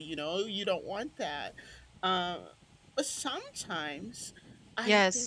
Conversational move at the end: listening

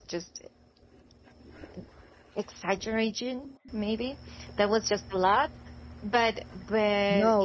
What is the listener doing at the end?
listening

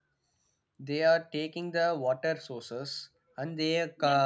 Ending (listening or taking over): taking over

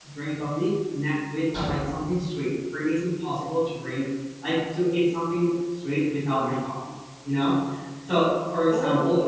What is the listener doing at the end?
listening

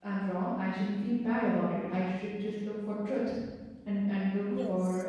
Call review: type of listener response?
listening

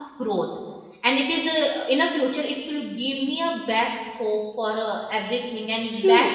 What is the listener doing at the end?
taking over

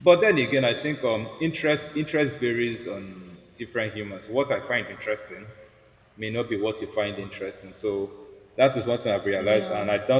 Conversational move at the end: listening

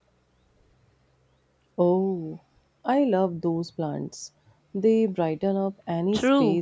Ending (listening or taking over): taking over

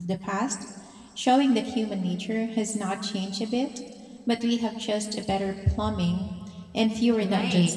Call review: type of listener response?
taking over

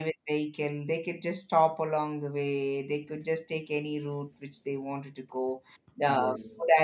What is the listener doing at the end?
listening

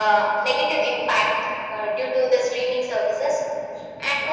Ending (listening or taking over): listening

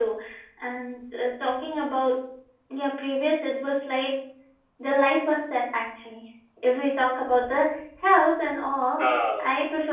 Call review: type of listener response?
listening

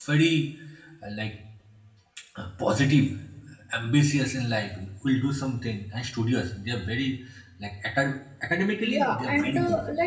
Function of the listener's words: taking over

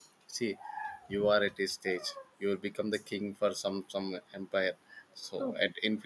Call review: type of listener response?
listening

